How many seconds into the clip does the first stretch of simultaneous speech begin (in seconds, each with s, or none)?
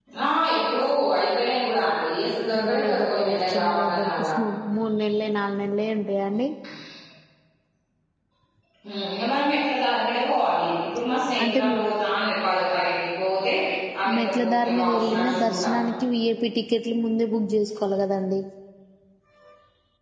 2.6 s